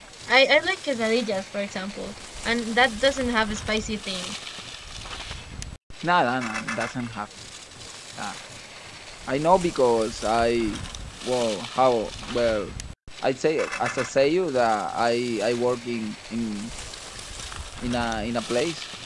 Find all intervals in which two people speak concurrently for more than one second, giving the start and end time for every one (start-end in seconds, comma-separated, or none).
none